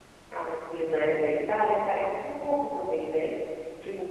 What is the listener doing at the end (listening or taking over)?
taking over